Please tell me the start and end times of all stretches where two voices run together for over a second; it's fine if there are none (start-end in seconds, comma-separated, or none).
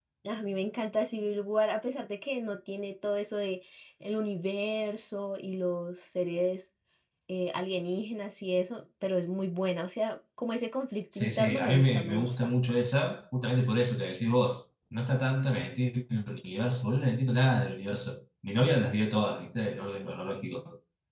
11.1-12.4